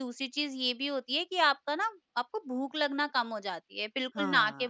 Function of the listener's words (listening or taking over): listening